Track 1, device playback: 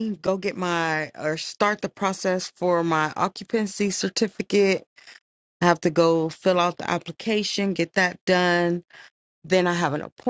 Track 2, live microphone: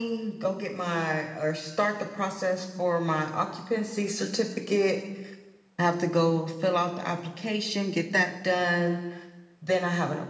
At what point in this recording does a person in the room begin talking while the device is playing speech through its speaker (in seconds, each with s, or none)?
none